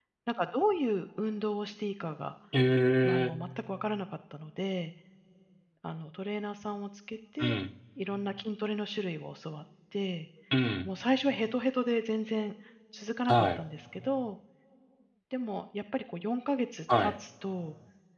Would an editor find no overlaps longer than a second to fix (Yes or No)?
Yes